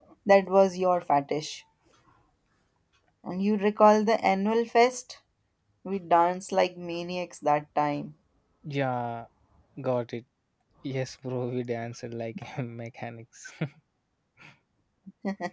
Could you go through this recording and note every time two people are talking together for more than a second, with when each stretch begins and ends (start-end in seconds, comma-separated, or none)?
none